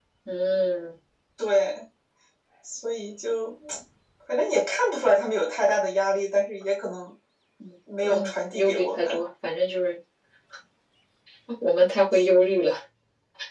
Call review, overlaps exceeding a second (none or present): present